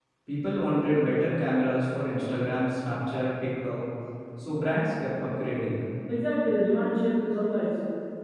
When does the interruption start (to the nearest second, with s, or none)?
none